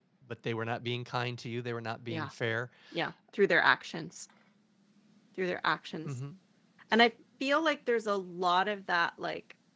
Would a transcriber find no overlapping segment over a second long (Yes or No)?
Yes